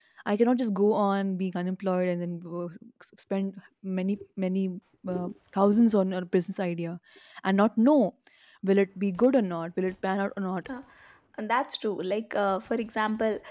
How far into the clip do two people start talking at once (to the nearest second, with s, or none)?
none